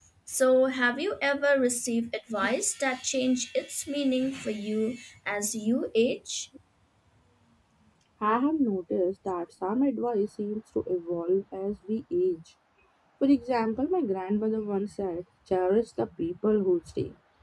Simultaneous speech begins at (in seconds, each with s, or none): none